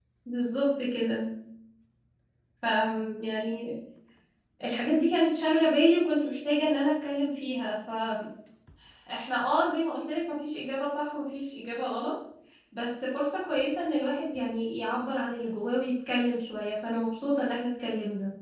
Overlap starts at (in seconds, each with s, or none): none